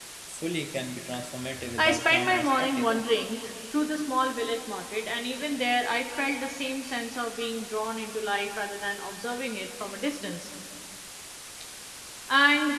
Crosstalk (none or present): present